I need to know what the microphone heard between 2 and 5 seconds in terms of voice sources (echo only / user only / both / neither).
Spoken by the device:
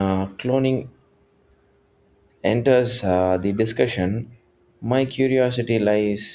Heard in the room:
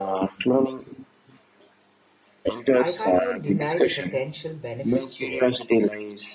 both